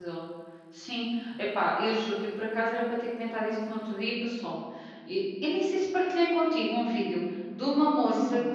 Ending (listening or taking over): listening